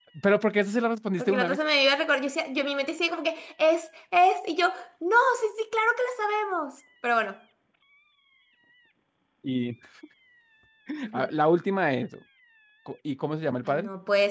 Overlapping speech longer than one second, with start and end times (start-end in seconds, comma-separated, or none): none